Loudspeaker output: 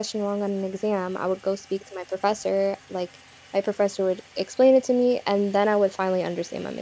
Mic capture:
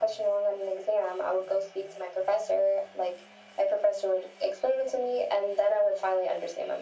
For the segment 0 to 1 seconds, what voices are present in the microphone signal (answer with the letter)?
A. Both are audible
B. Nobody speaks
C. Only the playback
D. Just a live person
C